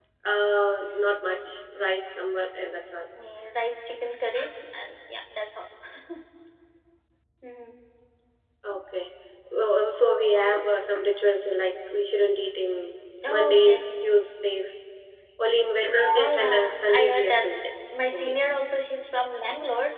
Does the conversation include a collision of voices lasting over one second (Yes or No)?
Yes